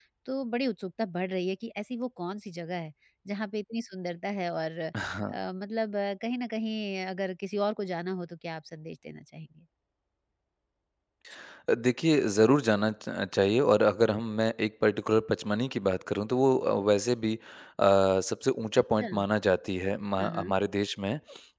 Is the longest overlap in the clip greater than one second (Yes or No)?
No